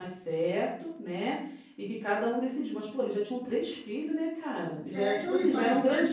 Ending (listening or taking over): taking over